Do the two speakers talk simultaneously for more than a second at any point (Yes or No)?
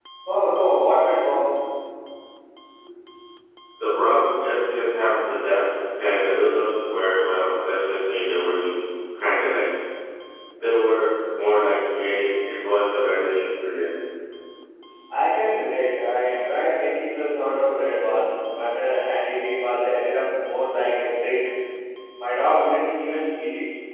No